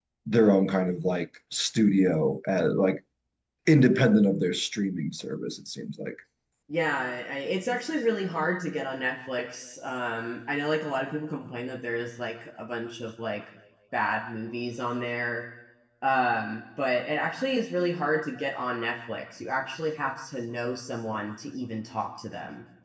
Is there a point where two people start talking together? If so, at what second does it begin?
none

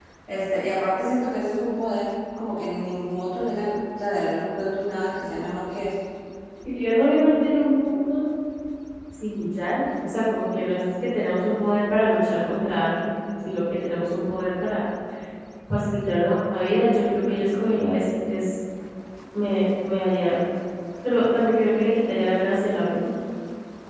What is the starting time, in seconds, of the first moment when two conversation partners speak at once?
none

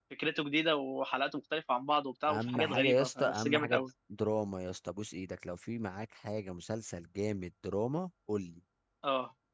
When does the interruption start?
2.3 s

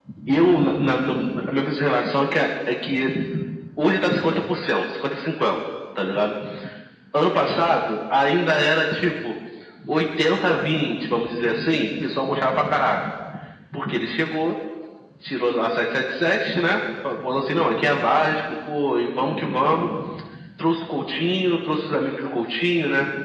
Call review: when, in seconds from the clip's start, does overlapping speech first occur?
none

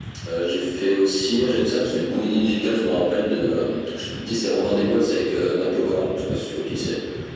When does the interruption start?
none

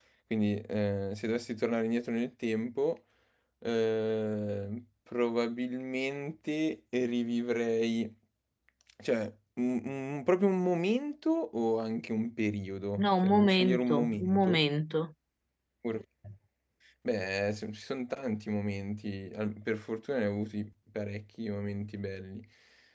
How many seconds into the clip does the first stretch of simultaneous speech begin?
13.0 s

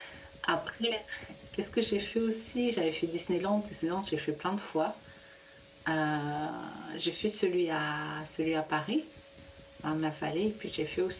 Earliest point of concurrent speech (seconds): none

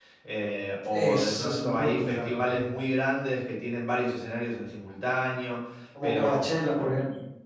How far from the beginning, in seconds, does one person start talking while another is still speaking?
0.9 s

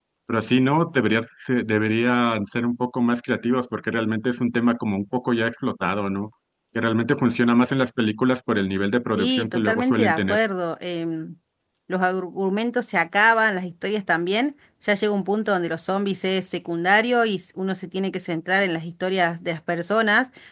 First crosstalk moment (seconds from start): 9.1 s

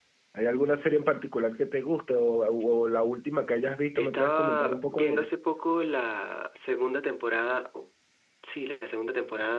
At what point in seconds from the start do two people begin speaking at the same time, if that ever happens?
4.0 s

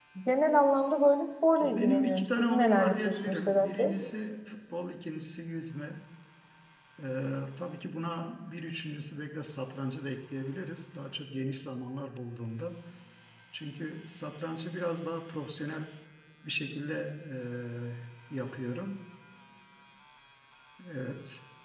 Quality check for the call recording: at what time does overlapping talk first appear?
1.6 s

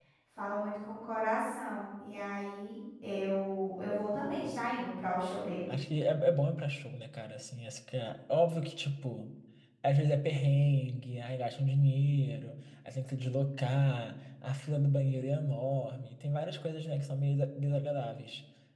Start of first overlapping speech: none

